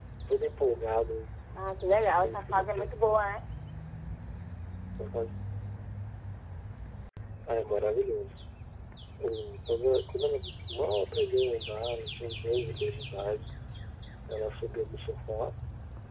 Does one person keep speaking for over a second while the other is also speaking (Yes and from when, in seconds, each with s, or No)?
Yes, from 1.5 s